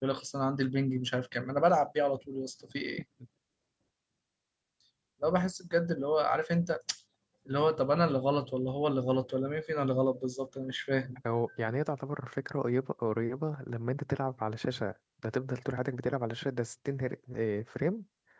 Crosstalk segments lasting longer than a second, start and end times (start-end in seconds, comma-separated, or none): none